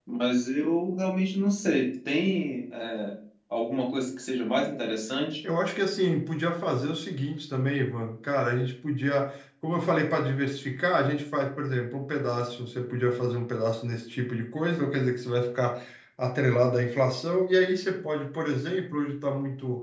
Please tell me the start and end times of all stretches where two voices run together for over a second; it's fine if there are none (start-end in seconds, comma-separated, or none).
none